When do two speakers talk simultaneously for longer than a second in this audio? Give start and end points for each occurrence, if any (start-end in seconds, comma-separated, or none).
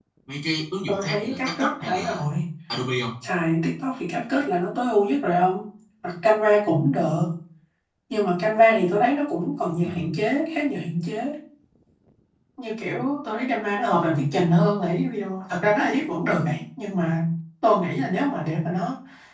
0.9-2.2